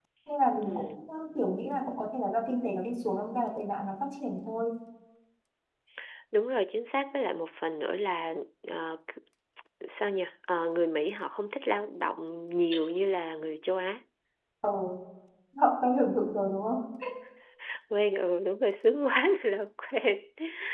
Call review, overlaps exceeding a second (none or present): none